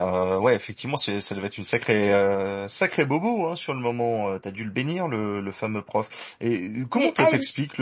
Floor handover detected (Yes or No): No